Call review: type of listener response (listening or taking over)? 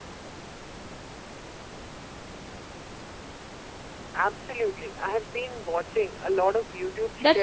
taking over